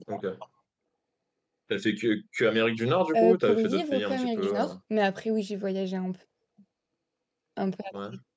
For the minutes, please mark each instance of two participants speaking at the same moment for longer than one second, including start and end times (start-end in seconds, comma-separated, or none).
3.1-4.7